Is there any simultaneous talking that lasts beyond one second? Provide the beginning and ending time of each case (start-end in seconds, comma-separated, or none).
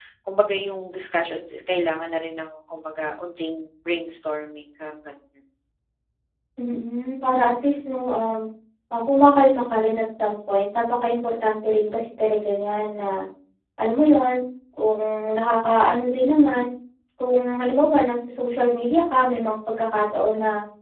none